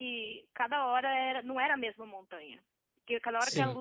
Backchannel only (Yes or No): Yes